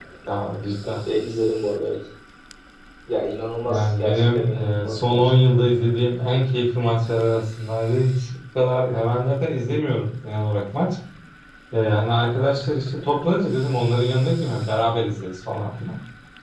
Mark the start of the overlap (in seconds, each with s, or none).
3.6 s